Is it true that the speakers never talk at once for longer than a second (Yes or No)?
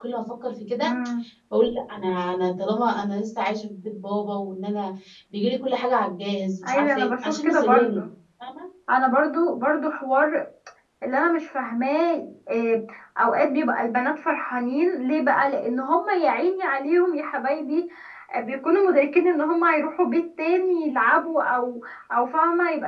No